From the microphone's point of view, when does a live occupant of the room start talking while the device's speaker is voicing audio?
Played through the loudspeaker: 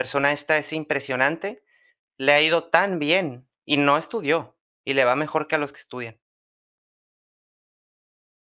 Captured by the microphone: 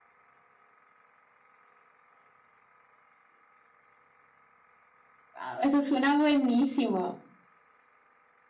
5.4 s

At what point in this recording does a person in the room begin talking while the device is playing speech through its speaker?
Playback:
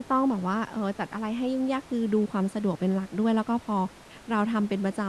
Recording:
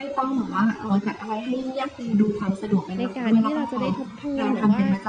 3.0 s

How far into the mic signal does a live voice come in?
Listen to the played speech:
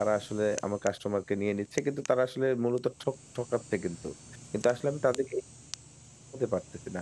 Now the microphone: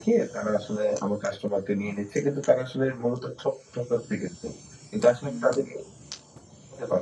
5.2 s

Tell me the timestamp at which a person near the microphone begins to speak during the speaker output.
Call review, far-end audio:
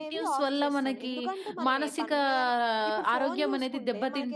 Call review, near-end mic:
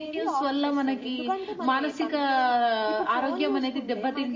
none

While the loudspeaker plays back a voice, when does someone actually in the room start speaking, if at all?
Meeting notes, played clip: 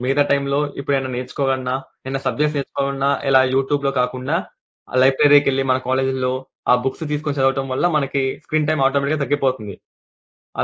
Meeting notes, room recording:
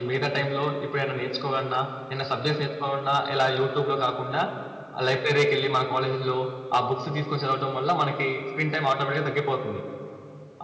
none

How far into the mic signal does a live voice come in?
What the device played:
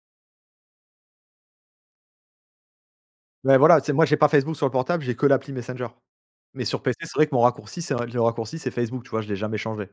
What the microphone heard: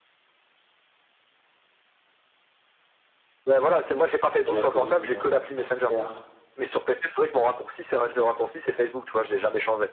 4.4 s

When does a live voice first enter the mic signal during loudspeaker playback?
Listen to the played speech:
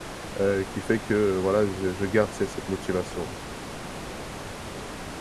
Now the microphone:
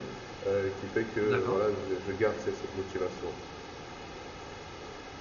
1.2 s

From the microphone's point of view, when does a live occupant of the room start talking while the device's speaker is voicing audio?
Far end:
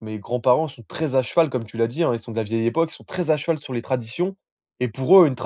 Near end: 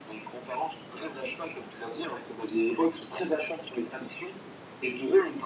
none

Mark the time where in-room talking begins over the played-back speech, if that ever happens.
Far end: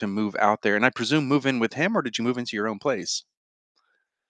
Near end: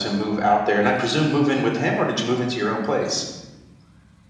none

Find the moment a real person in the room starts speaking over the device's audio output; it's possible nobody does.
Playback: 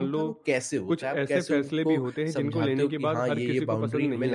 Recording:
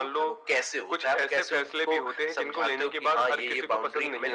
none

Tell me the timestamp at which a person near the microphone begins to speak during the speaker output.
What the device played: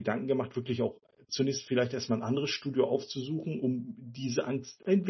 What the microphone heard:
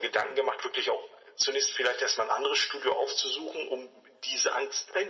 none

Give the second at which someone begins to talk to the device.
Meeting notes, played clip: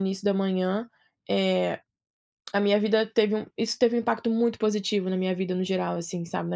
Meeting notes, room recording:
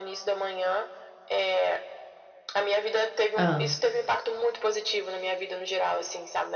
3.3 s

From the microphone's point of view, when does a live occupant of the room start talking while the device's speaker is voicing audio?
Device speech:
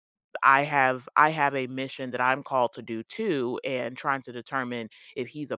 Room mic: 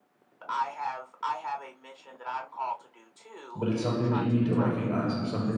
3.6 s

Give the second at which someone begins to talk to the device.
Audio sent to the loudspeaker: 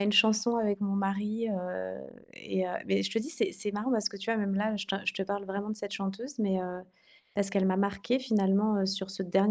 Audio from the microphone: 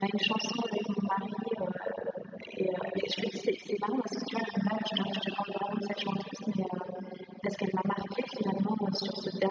none

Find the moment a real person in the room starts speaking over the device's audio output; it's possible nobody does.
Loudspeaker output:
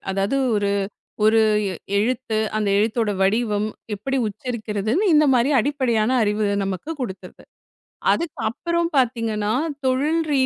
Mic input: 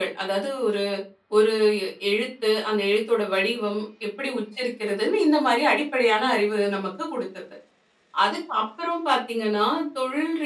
none

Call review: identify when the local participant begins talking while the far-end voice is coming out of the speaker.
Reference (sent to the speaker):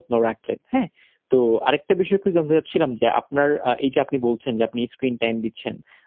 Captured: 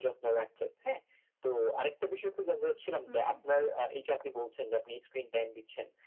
3.0 s

